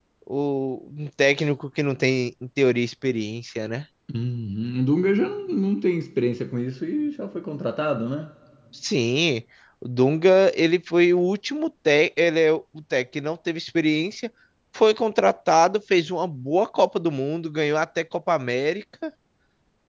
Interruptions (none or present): none